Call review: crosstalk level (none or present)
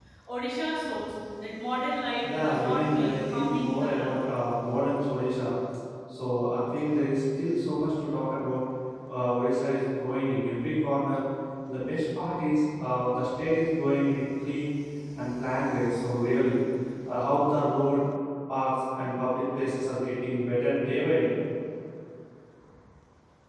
present